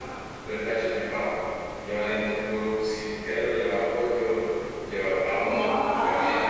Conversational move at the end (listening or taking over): taking over